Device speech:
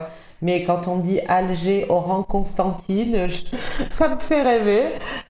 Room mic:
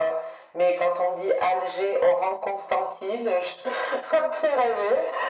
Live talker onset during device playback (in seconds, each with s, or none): none